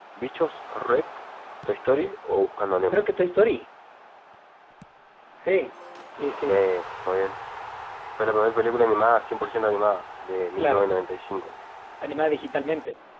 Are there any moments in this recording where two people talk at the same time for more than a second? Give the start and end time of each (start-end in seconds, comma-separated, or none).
none